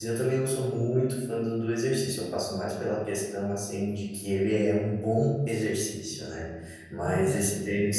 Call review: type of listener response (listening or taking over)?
listening